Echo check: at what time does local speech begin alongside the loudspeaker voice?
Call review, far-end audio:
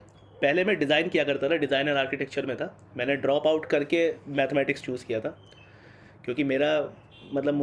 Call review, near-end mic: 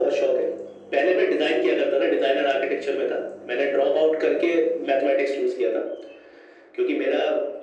none

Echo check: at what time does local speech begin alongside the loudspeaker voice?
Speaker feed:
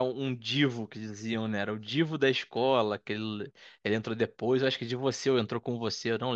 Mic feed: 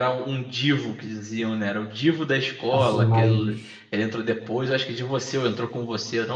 2.7 s

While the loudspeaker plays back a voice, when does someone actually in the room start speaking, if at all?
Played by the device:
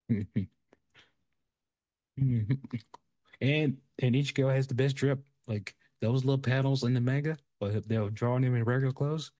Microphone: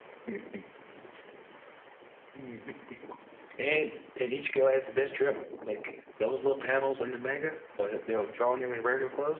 none

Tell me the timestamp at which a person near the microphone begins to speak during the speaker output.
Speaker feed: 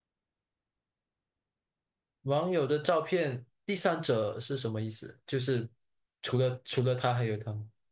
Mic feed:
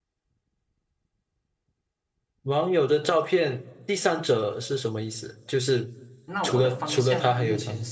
6.3 s

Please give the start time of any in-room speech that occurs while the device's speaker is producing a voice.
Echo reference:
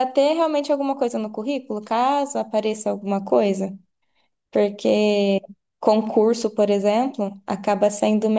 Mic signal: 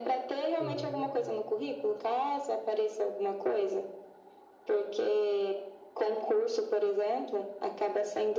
0.6 s

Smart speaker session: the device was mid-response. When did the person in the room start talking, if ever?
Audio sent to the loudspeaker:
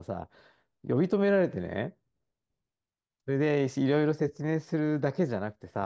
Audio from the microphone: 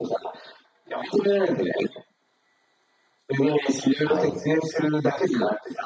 4.0 s

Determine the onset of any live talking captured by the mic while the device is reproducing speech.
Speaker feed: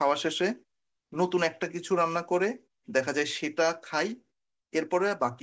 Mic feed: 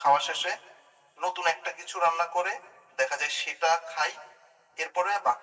none

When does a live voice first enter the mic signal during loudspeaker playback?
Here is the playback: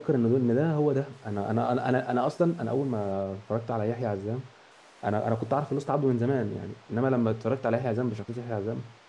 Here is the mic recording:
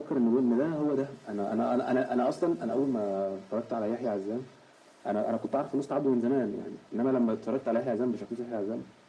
none

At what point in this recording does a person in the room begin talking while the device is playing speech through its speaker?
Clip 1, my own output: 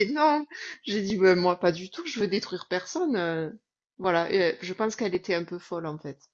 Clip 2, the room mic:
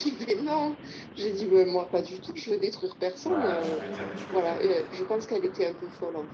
3.2 s

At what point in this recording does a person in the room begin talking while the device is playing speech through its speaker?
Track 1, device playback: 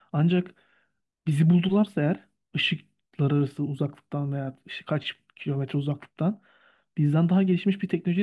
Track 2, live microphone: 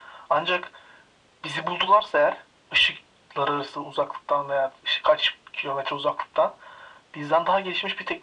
none

